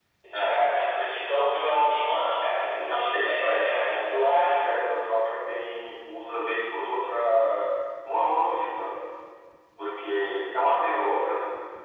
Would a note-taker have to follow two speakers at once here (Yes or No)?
Yes